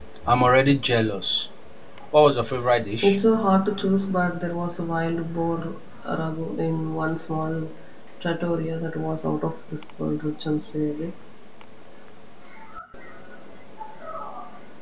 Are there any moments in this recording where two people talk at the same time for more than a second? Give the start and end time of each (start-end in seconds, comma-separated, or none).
none